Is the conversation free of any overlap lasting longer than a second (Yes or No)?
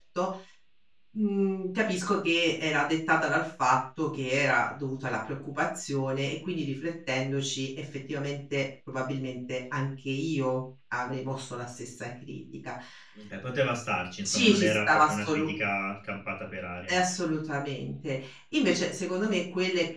No